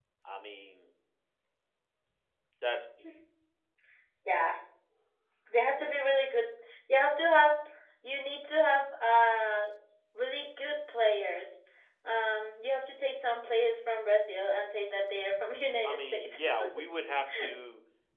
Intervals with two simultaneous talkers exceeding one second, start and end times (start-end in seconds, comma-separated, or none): none